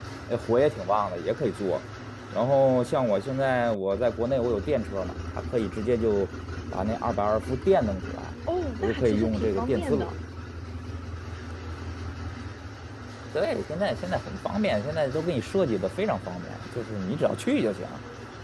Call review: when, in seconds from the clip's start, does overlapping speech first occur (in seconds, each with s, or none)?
8.8 s